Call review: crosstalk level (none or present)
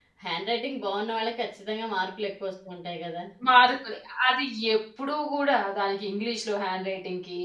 none